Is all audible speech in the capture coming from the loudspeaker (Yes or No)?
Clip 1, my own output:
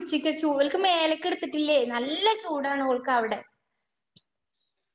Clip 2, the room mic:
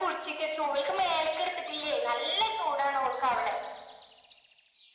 Yes